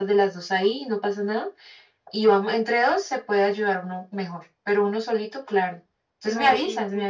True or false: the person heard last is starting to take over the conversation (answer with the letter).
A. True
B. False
A